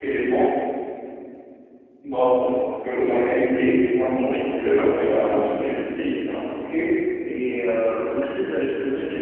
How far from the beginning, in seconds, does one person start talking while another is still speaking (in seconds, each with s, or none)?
4.2 s